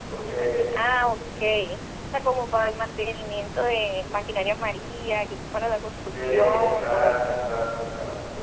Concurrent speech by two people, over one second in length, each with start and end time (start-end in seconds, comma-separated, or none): 6.1-7.4